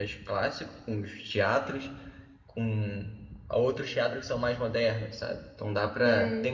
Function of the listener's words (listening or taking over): listening